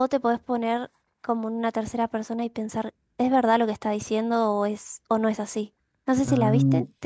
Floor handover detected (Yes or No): Yes